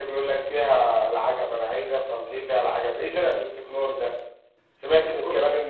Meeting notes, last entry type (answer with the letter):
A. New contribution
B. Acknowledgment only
B